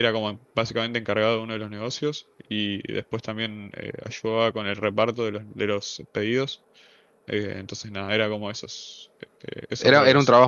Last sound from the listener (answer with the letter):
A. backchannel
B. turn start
B